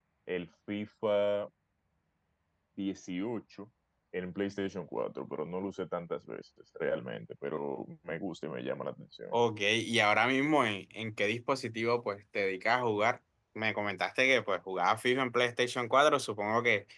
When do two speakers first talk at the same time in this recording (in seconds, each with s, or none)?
none